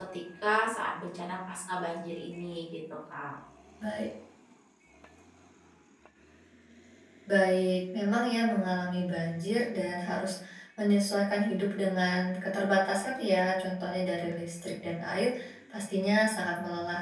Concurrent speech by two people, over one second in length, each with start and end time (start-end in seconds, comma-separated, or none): none